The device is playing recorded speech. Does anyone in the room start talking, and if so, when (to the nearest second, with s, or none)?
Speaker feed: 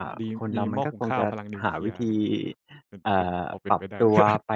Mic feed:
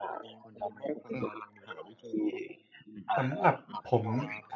3 s